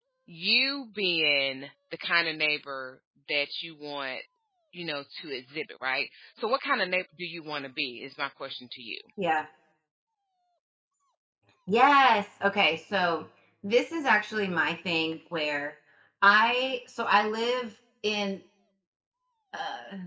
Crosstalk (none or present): none